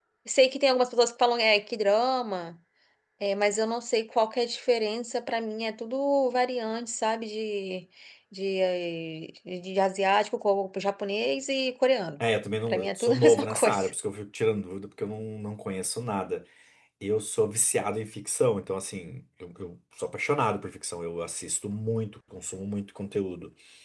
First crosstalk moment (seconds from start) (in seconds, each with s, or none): 12.7 s